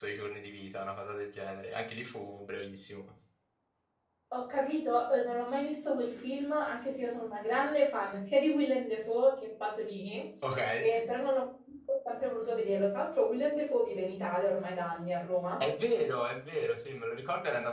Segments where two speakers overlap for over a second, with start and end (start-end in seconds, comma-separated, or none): none